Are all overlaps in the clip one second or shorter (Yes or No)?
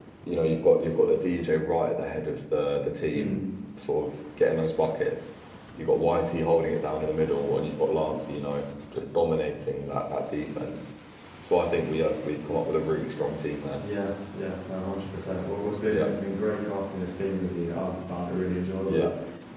Yes